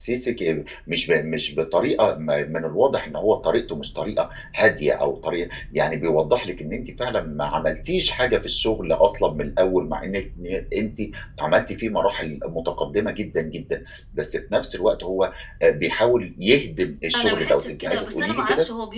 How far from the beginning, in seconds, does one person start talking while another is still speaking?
17.1 s

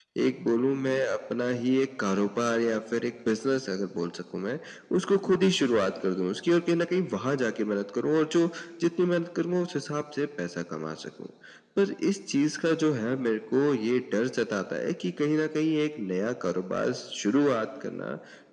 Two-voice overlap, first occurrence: none

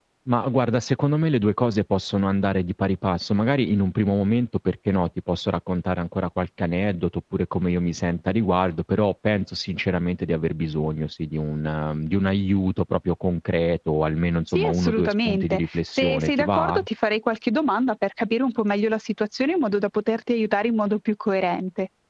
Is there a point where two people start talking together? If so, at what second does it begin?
14.5 s

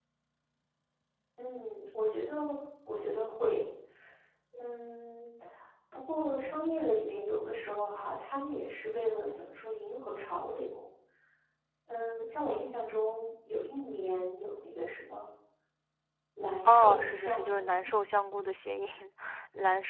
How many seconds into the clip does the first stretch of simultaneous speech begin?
16.6 s

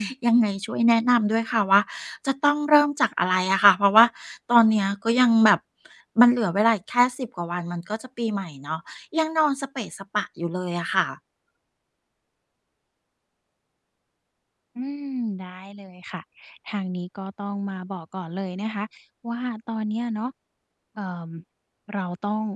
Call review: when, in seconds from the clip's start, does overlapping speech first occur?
none

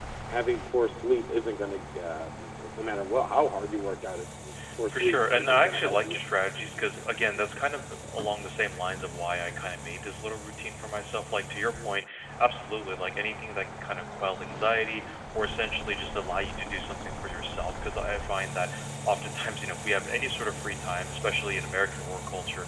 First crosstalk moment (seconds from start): 4.9 s

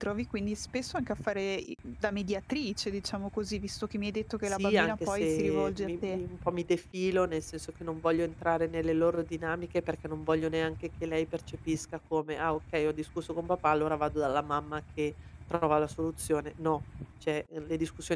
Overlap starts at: 4.4 s

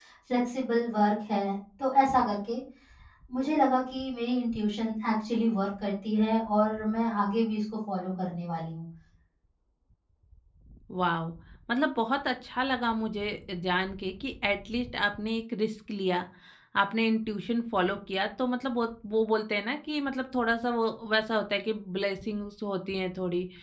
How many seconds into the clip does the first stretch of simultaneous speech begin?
none

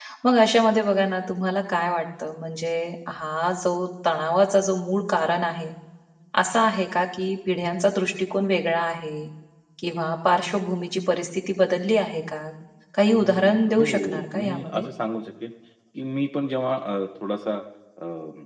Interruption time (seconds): 13.1 s

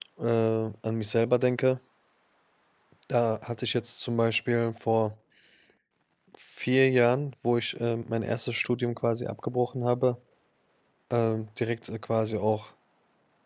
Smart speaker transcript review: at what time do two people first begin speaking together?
none

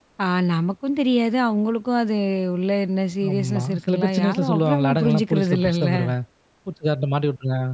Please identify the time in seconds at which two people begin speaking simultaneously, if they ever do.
3.3 s

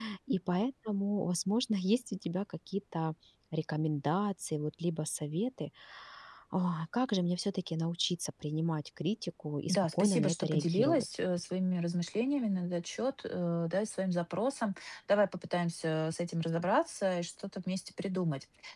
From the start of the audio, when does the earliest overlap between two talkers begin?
9.7 s

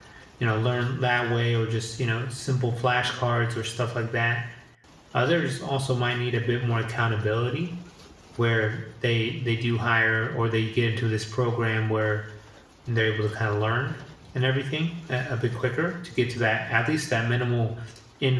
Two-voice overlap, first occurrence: none

